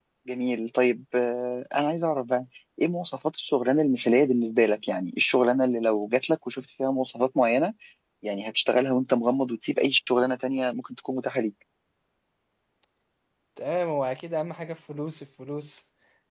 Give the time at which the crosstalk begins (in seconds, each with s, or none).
none